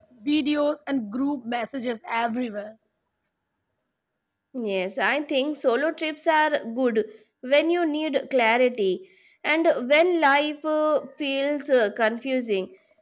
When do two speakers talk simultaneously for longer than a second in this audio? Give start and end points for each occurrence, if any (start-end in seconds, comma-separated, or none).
none